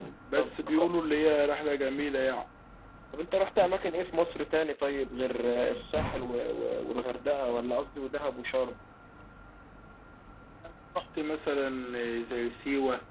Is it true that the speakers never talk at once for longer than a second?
Yes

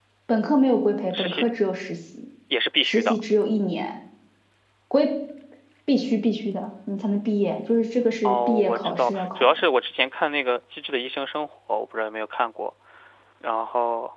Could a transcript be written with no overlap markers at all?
No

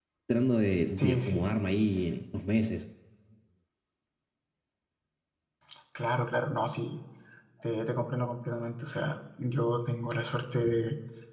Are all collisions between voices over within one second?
Yes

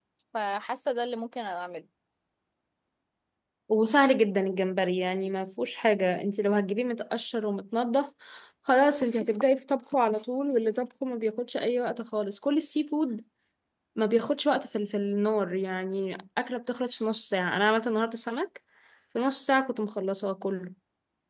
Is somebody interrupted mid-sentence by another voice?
No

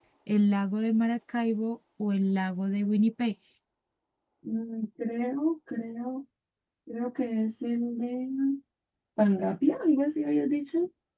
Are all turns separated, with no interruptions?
Yes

